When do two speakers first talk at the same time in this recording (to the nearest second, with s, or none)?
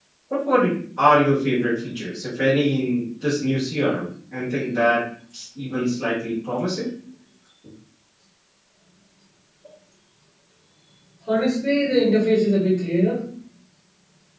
none